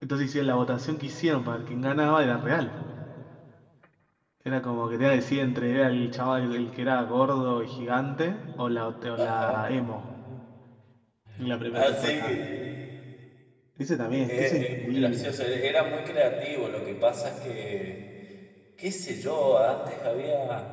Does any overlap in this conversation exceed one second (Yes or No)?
Yes